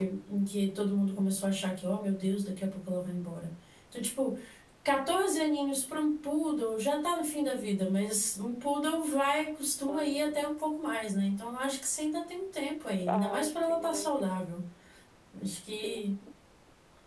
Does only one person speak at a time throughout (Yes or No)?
No